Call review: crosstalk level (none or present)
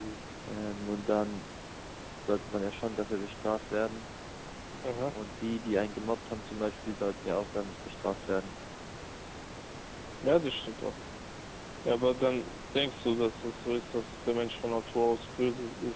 none